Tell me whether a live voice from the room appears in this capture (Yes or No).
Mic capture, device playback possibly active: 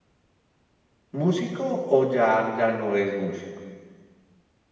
Yes